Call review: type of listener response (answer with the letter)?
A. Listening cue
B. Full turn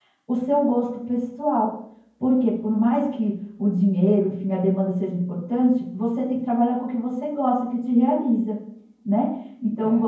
B